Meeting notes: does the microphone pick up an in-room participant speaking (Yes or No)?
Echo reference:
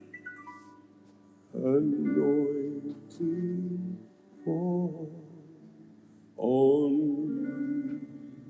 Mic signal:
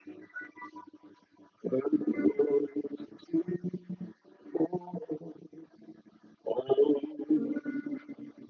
No